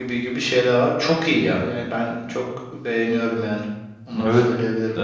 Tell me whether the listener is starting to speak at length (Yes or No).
Yes